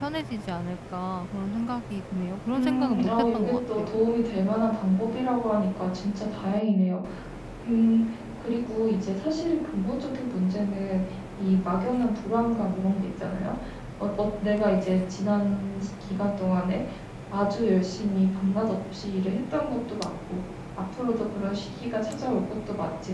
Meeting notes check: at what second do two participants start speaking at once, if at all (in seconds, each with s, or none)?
2.5 s